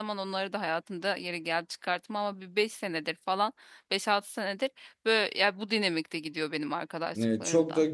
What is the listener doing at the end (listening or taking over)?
taking over